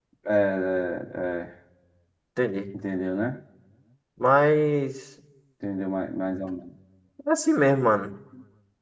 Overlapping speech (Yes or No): No